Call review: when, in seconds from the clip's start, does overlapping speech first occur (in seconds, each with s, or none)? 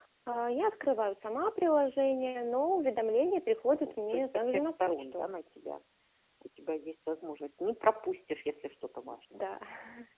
3.7 s